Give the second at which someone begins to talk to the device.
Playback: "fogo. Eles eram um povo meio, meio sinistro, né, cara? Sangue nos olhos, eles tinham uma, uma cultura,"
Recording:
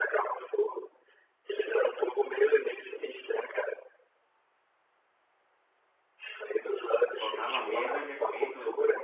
7.1 s

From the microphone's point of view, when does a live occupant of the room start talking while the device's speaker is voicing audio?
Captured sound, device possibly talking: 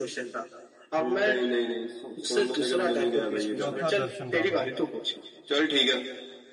3.6 s

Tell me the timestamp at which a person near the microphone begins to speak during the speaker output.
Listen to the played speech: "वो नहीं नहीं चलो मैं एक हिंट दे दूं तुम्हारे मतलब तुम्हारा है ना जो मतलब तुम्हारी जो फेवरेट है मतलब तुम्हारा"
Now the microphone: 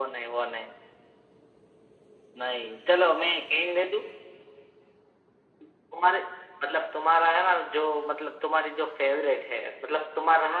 none

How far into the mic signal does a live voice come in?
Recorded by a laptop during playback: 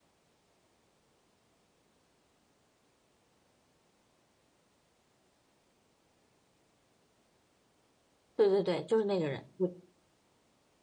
8.4 s

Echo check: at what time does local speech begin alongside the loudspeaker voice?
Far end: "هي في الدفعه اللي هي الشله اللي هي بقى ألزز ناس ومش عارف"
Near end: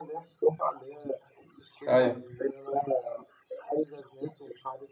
1.9 s

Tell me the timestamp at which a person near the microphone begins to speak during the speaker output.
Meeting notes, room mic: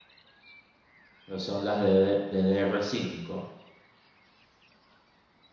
1.3 s

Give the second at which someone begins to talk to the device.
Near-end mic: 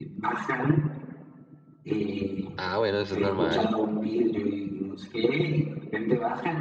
2.5 s

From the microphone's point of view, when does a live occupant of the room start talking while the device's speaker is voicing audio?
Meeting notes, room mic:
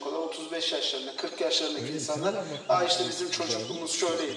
1.8 s

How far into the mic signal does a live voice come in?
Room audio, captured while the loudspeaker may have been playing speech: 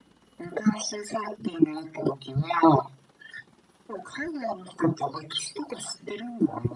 none

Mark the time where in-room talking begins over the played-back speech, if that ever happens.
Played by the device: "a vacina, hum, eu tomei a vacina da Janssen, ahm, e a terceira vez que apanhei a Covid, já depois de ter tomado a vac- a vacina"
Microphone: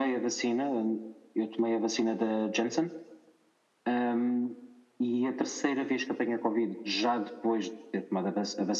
none

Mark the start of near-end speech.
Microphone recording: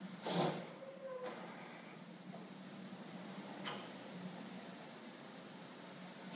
none

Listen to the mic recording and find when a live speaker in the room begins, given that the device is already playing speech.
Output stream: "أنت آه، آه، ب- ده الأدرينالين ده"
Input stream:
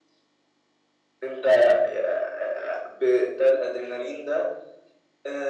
none

